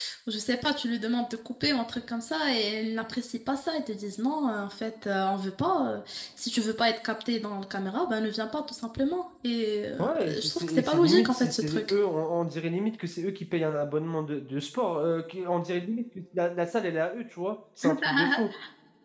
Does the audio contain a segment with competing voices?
Yes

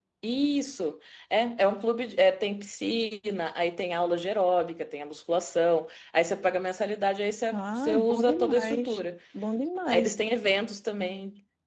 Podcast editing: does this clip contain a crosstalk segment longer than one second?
Yes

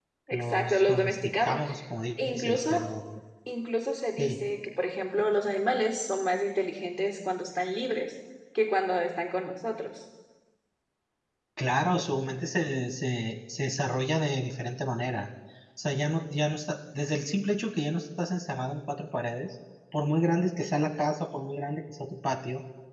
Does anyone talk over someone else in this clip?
Yes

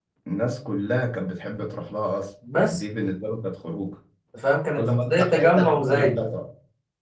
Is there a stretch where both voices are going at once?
Yes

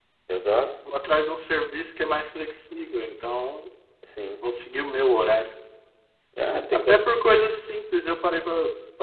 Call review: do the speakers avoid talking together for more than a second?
Yes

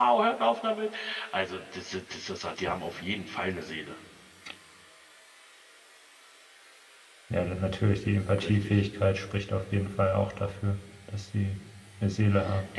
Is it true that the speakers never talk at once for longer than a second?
Yes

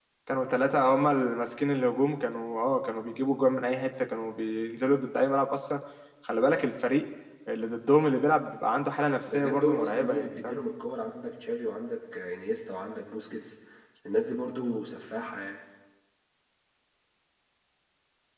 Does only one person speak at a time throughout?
No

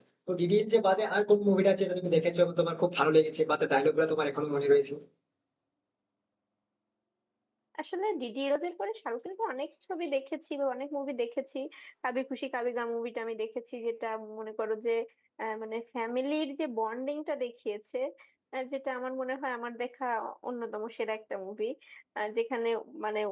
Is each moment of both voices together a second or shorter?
Yes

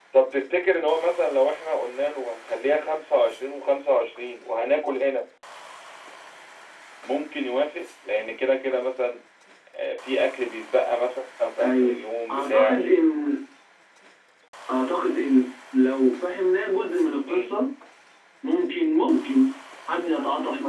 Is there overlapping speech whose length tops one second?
No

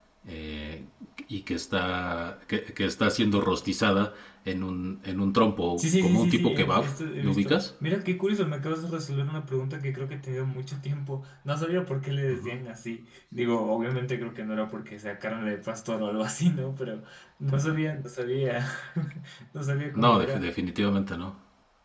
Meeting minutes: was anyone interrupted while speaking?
Yes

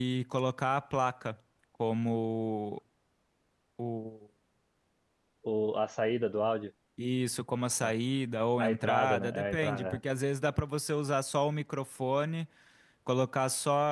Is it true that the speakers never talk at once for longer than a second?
No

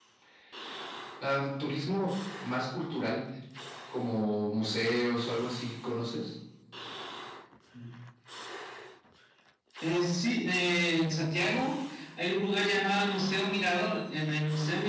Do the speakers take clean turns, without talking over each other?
Yes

